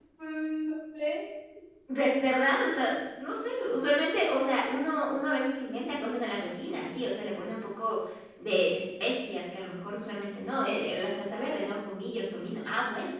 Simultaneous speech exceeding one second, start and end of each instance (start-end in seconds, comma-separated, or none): none